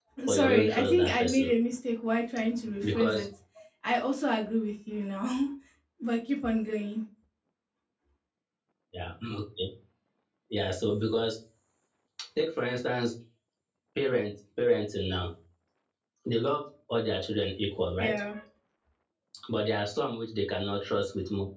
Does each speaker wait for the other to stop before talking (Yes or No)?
No